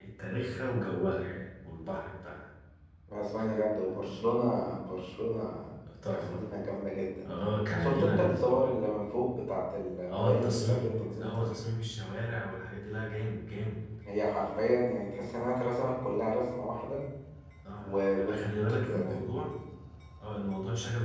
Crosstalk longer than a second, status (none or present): present